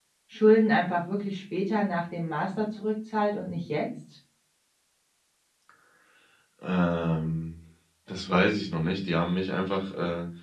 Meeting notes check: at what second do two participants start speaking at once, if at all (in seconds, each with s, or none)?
none